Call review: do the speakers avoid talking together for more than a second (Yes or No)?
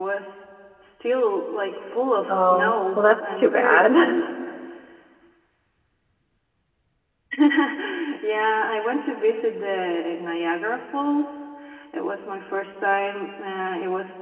No